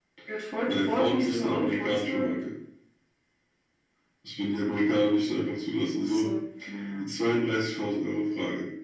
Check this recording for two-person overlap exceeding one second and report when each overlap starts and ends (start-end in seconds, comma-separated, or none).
0.7-2.2